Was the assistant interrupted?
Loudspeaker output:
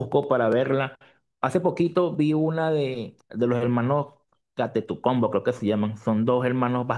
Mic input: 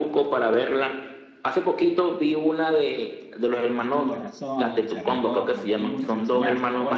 Yes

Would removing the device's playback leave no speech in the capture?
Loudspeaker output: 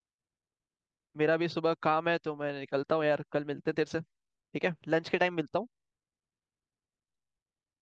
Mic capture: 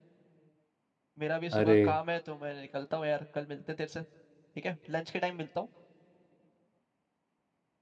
No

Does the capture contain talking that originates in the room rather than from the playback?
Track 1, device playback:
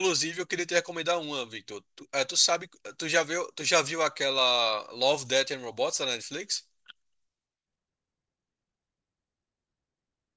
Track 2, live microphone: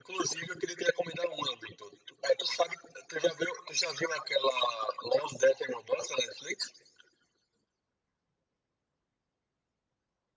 No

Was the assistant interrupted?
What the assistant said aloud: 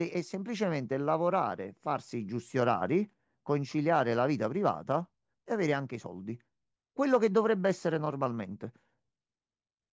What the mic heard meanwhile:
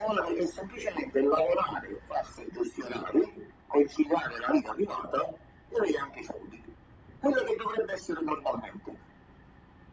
No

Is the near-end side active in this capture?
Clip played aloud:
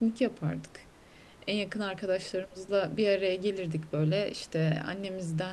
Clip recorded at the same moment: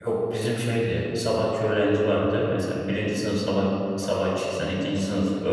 Yes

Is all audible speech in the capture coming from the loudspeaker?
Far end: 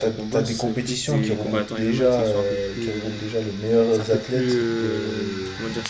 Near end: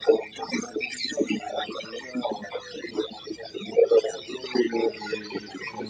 No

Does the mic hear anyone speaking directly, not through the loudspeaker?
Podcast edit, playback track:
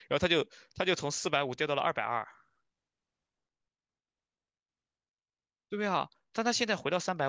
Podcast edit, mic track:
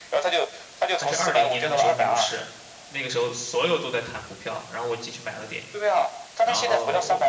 Yes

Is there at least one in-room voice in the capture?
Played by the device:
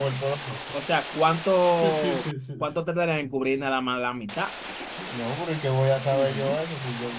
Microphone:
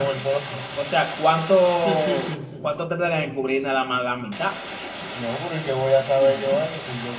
No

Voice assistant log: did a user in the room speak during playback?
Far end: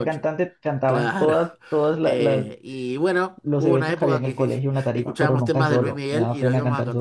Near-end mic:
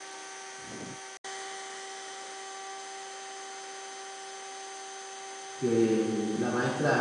Yes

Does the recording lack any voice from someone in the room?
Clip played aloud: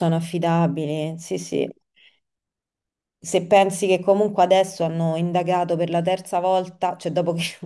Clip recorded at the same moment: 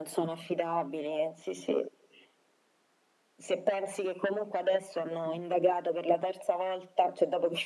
Yes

